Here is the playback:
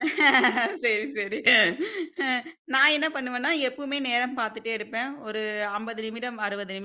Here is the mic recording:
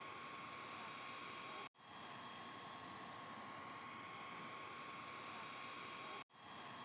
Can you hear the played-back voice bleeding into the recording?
No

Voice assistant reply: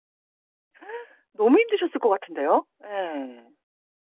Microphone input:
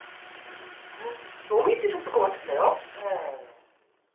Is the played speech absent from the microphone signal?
No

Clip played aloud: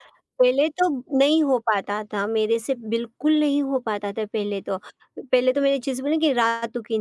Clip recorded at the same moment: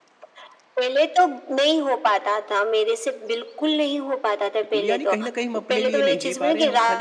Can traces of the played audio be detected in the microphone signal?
Yes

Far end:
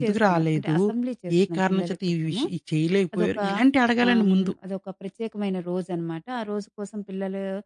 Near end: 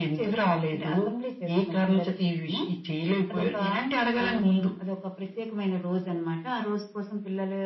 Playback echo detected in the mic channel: Yes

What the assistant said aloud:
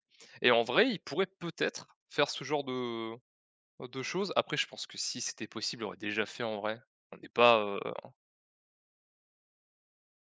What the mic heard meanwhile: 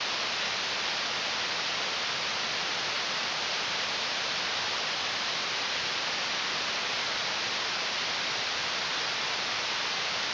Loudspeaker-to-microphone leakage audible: No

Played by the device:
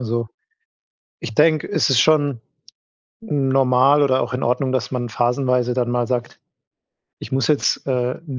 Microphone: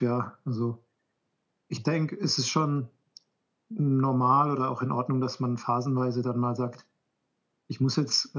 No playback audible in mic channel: No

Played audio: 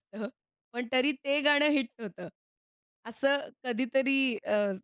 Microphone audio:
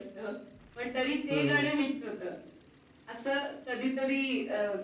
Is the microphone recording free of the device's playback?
No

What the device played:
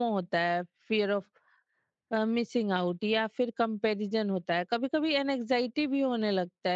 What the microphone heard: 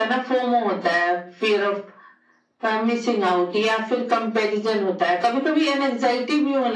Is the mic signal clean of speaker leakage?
No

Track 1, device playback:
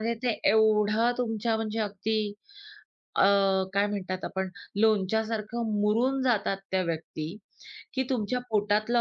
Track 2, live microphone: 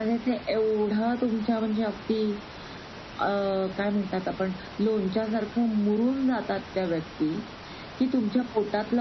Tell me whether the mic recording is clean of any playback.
No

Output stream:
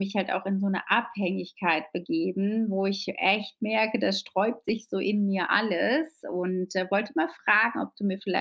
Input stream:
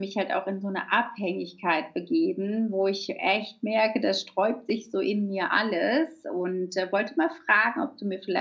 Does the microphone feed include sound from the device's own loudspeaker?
Yes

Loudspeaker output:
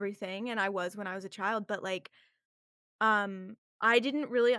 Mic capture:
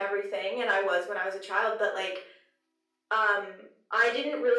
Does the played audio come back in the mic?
Yes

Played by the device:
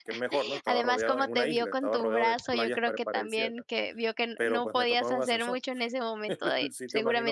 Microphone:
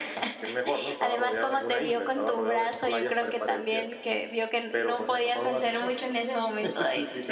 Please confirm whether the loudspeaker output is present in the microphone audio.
Yes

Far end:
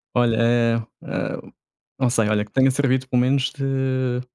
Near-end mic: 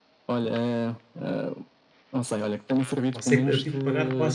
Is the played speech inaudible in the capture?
No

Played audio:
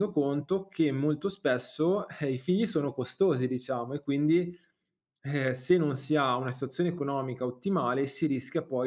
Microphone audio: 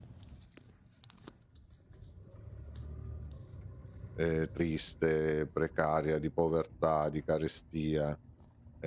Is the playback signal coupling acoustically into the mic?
No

